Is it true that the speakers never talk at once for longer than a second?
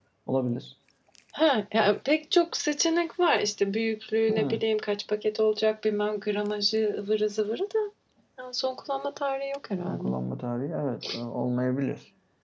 Yes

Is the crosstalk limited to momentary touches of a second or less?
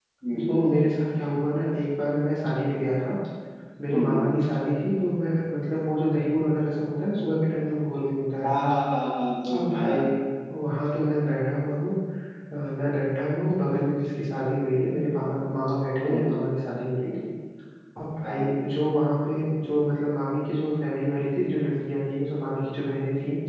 Yes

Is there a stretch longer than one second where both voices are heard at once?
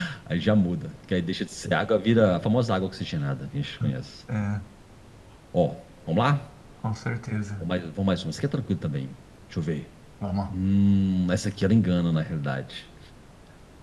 No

